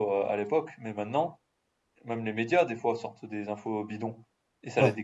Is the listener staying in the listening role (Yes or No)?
Yes